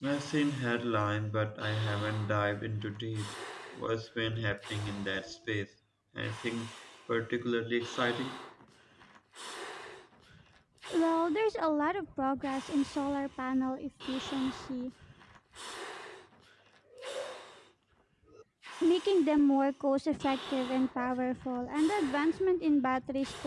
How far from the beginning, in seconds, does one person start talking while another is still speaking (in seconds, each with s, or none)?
none